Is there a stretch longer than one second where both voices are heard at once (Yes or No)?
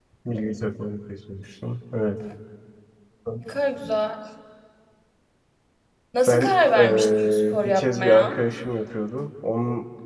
Yes